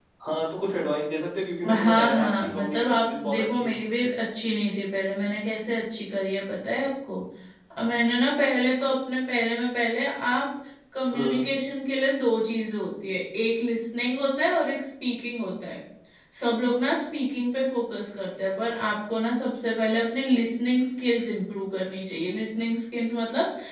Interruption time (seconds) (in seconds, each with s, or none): 1.6 s